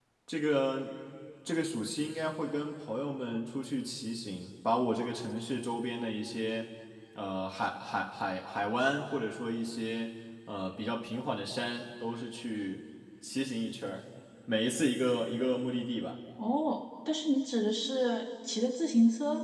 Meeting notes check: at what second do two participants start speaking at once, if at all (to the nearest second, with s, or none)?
none